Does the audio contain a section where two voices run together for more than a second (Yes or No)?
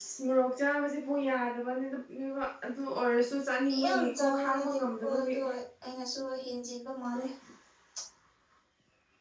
Yes